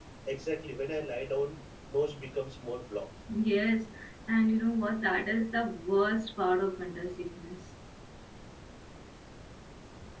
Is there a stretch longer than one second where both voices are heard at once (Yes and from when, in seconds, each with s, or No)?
No